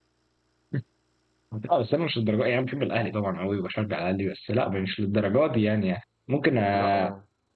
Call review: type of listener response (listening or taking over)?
listening